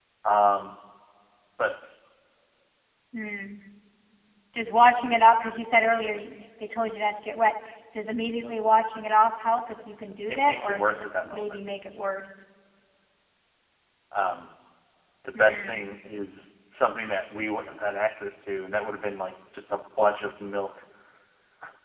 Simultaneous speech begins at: 10.3 s

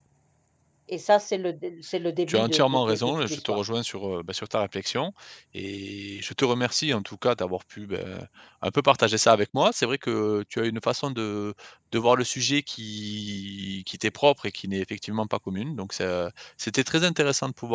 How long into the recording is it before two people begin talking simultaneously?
2.3 s

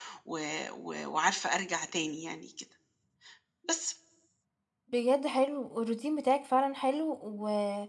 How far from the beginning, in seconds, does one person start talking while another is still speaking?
none

